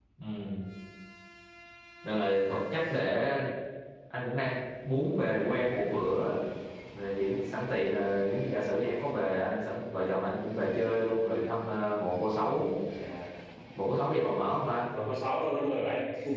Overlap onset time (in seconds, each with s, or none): none